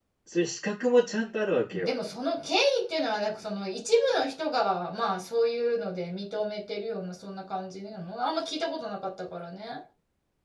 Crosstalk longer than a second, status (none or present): none